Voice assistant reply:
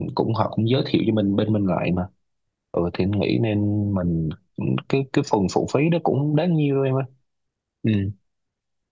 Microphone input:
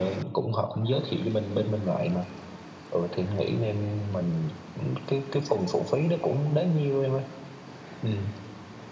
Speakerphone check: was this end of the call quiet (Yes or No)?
Yes